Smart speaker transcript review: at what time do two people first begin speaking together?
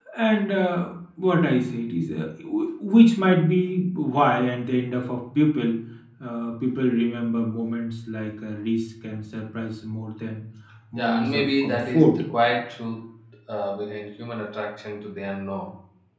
10.9 s

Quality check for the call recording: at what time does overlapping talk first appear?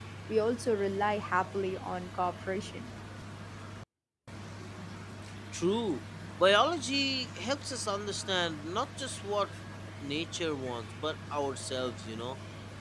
none

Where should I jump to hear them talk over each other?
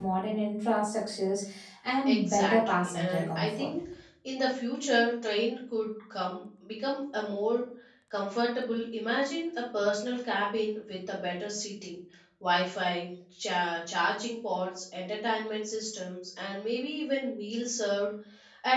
2.0 s

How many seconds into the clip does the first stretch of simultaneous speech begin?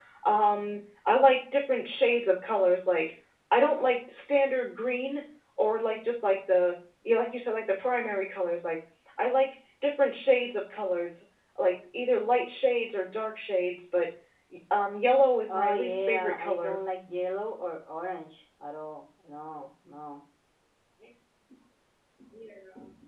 15.5 s

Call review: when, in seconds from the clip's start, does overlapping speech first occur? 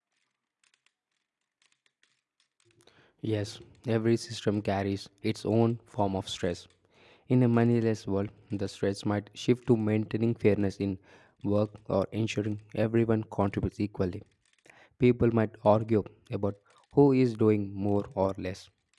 none

